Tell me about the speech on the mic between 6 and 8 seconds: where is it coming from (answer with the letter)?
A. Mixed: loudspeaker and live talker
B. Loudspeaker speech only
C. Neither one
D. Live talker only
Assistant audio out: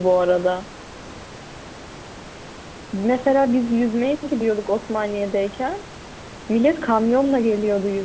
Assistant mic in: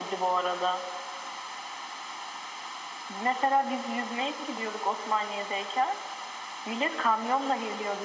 B